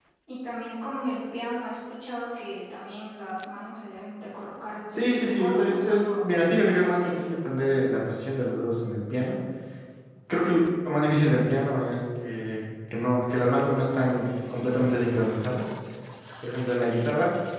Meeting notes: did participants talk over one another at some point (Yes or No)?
Yes